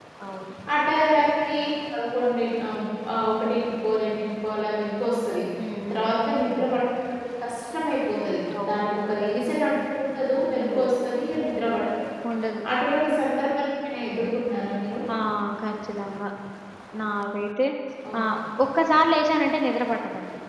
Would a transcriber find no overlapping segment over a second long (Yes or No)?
Yes